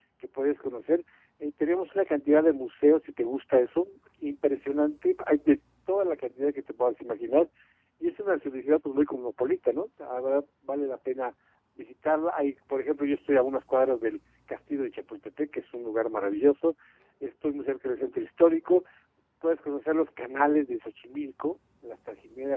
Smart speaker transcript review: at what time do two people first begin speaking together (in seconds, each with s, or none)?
none